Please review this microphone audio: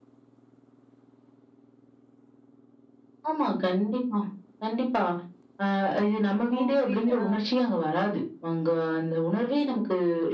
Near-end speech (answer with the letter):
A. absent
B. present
B